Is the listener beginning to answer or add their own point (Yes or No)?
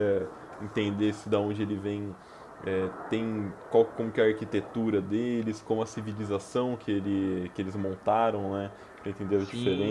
Yes